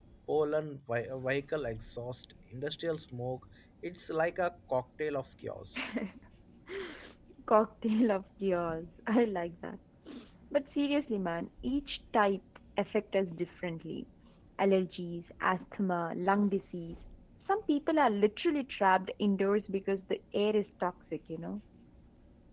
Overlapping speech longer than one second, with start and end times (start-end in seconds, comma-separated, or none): none